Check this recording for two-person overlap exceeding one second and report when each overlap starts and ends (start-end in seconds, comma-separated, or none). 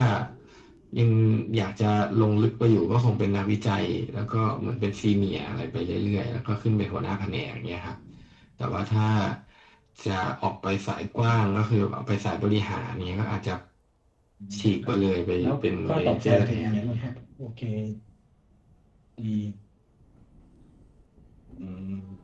15.4-17.1